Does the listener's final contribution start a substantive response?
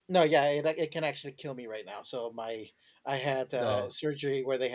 No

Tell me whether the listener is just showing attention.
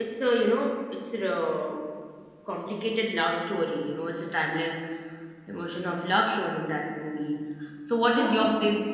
Yes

